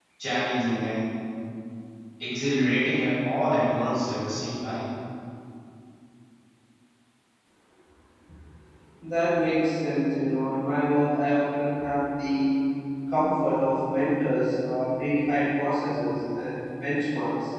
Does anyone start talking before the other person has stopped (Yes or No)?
No